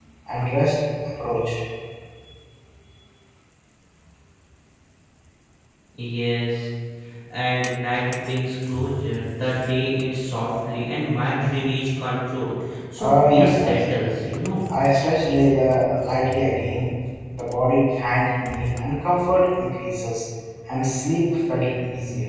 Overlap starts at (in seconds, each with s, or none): 13.0 s